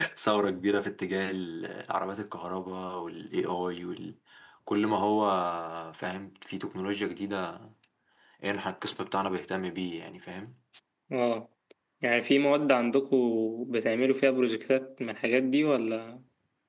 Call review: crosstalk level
none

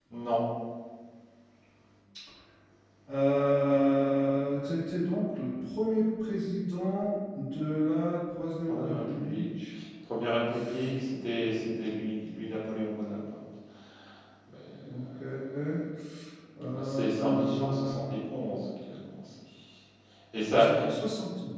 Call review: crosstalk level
present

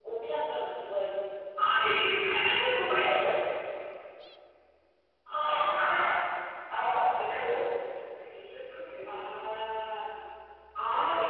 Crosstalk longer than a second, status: none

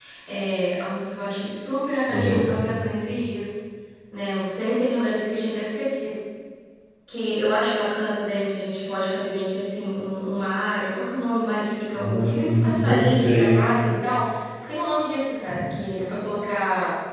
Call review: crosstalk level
present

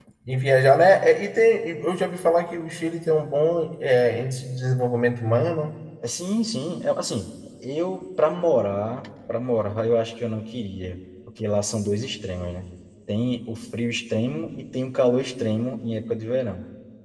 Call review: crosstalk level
none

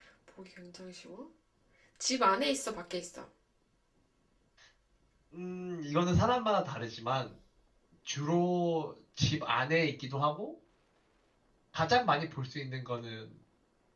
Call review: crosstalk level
none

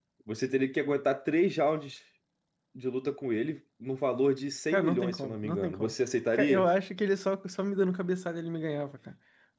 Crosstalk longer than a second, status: present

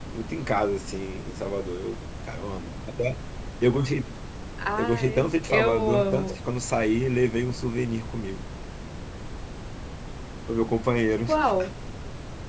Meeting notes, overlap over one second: present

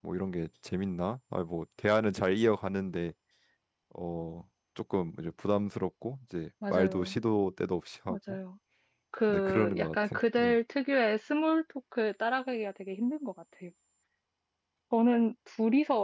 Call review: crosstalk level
present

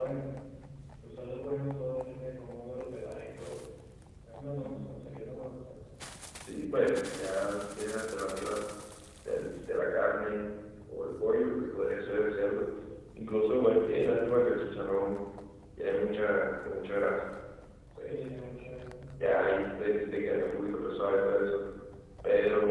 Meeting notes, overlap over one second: none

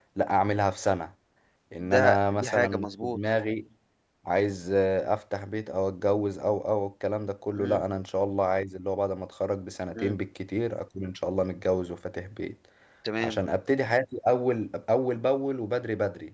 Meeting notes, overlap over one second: present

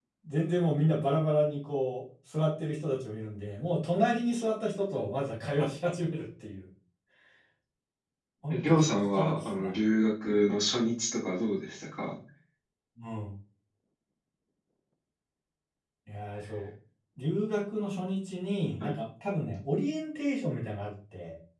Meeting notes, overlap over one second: present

